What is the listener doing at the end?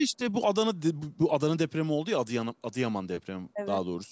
listening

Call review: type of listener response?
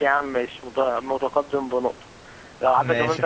listening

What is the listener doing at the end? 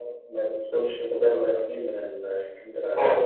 taking over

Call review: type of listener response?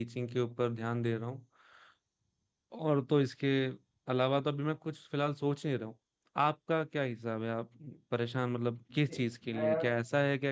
listening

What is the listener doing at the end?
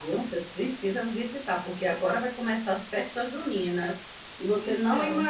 listening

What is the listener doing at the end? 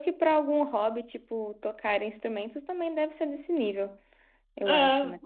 taking over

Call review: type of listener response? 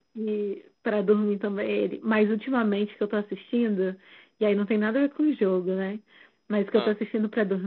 listening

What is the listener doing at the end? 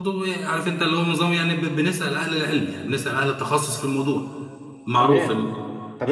taking over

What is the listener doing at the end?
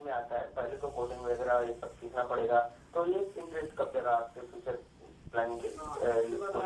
taking over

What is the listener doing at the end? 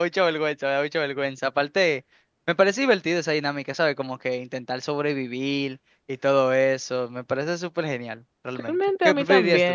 taking over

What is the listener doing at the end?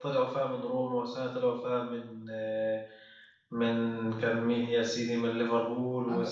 taking over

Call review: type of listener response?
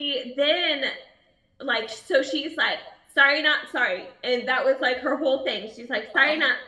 listening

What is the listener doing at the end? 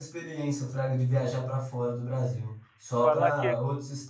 listening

